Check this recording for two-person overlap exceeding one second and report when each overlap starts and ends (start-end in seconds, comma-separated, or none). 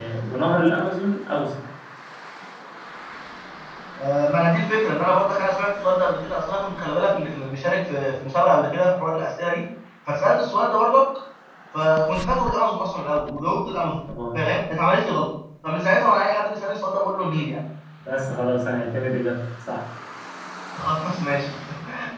none